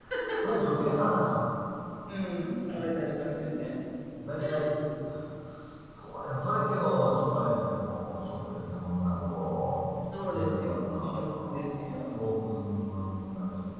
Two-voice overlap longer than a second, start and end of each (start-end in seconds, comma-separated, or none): 10.1-12.2